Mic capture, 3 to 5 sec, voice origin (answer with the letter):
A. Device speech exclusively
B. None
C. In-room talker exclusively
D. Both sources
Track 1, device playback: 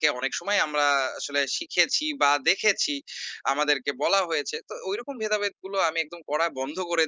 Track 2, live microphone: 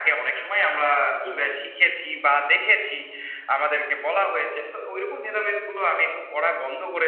A